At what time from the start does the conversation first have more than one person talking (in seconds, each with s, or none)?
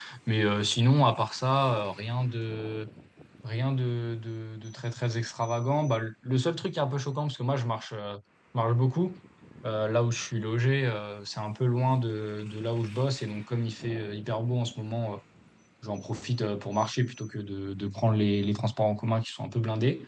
none